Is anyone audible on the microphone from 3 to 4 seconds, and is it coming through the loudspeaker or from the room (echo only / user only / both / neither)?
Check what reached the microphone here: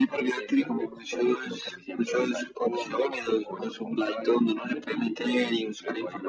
echo only